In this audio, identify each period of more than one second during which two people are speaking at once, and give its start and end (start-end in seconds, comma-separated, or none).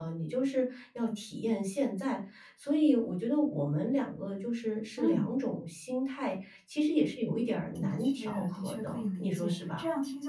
7.8-9.8